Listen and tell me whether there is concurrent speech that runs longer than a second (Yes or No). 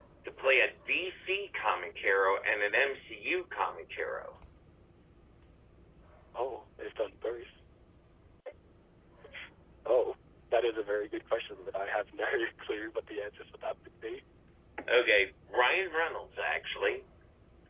No